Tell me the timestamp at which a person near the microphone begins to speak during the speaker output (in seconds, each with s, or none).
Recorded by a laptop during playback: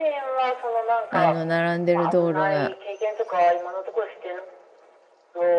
1.1 s